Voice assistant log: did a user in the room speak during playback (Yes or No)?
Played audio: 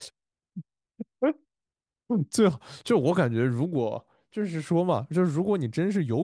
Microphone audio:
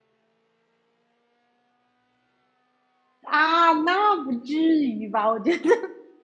Yes